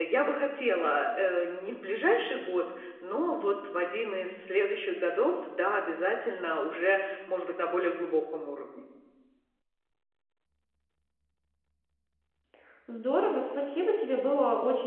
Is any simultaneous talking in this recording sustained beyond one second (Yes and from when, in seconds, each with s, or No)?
No